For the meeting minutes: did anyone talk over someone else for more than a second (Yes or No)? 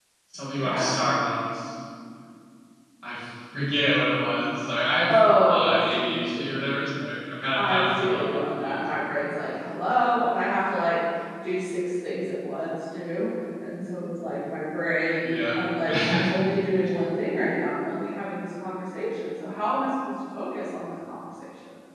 Yes